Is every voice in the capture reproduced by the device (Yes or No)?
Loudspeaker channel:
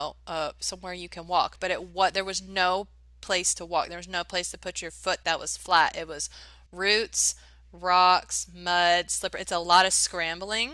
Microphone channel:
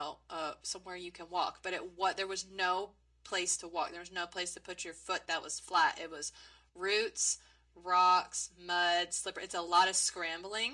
Yes